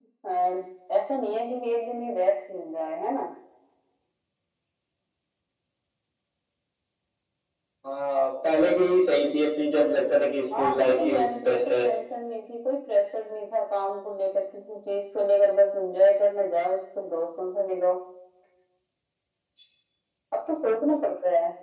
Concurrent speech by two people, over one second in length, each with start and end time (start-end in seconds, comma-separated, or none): 10.6-11.8